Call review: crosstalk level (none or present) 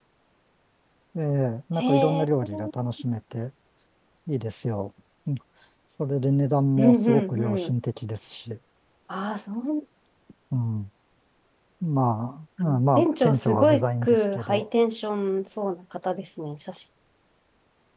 present